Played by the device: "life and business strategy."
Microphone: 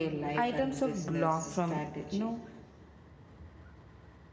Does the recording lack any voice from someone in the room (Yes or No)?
No